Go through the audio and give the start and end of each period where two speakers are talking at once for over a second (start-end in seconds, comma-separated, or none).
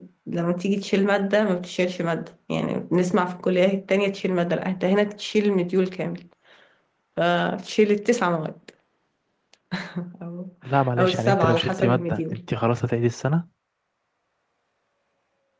11.0-12.4